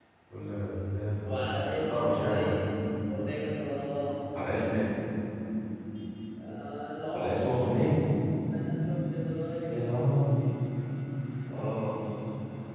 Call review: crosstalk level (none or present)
present